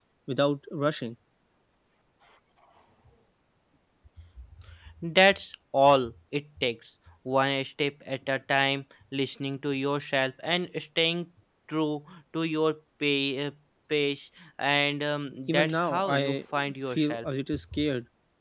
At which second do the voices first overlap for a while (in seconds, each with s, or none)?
15.5 s